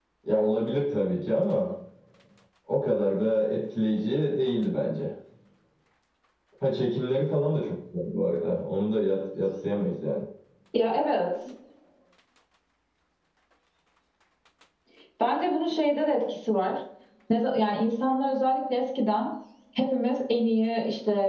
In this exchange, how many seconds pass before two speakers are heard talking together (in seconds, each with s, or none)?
none